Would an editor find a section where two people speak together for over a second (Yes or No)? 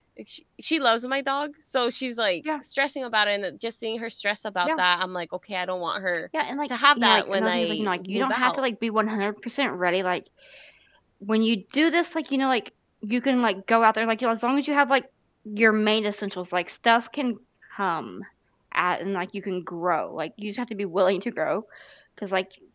Yes